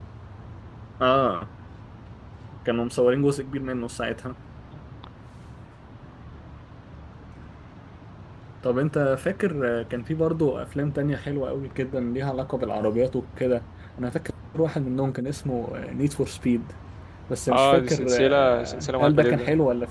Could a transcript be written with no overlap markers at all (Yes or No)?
No